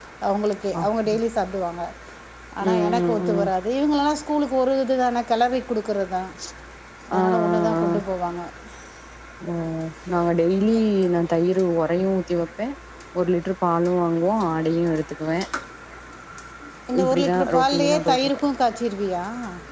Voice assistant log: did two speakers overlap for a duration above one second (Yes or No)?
Yes